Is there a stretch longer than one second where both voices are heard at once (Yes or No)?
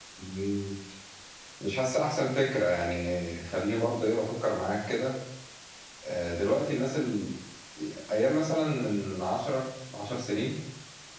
No